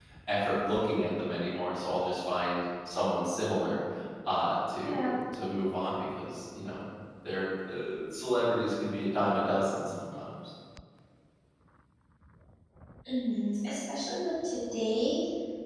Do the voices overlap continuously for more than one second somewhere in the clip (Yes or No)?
No